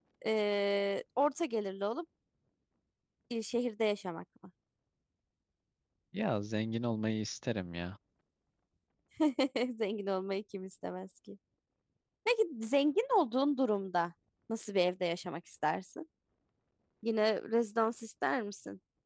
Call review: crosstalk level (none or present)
none